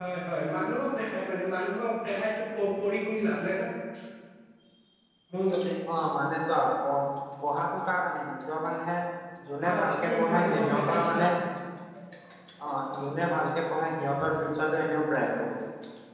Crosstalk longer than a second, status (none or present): present